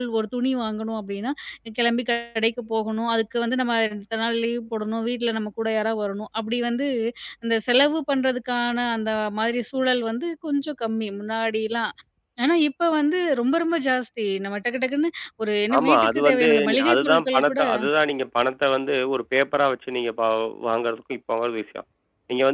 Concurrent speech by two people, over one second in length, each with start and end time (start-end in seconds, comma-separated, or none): 15.8-17.6